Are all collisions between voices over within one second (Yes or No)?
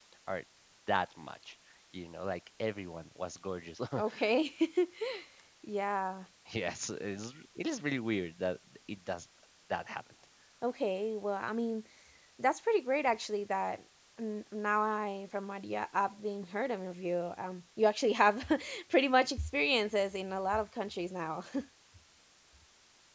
Yes